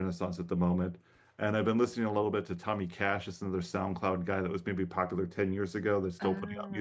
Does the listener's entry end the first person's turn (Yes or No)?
Yes